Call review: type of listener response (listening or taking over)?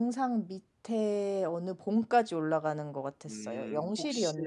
taking over